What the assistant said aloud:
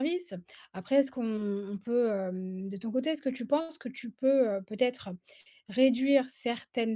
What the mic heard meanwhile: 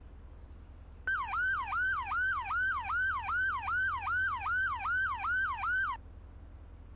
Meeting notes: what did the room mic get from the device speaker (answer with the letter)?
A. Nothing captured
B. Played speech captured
A